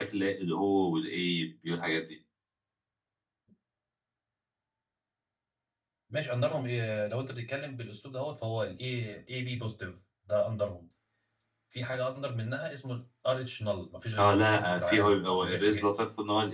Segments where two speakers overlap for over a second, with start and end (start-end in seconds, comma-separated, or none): 14.2-15.8